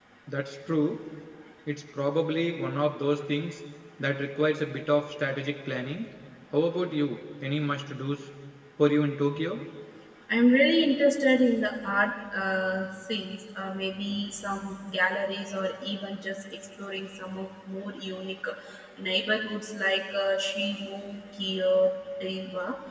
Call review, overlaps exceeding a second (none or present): none